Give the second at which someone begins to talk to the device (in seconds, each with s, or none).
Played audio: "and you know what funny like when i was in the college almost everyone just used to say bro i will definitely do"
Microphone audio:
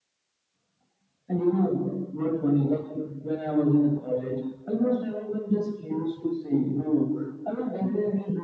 none